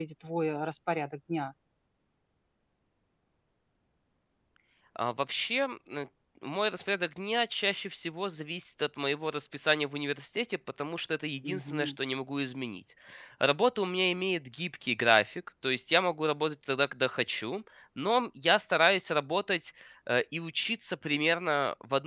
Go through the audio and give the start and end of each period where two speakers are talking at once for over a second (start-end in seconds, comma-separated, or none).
none